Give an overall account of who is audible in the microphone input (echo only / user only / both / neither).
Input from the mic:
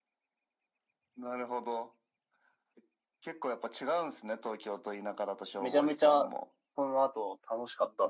both